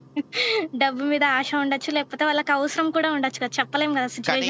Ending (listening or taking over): taking over